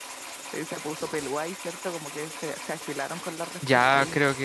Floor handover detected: Yes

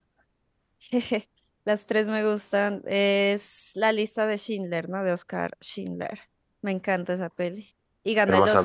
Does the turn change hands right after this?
Yes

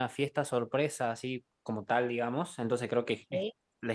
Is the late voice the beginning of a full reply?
No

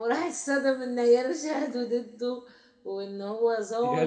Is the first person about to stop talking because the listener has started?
No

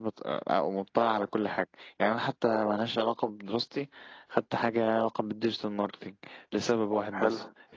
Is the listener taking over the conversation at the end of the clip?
No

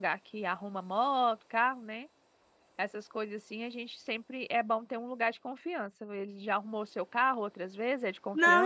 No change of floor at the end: No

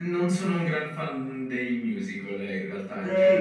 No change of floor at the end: No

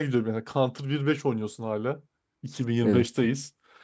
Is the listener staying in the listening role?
Yes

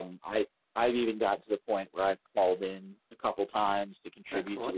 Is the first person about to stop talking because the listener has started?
No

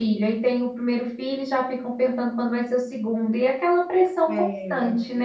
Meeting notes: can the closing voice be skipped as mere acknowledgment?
No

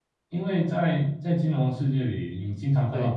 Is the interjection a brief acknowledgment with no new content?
Yes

